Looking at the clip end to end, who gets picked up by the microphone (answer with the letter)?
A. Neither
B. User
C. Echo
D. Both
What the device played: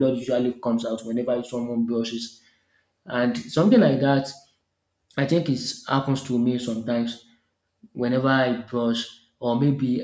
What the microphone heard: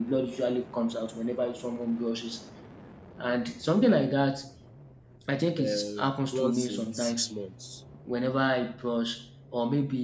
D